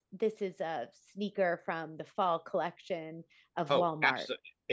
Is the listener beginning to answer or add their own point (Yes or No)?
Yes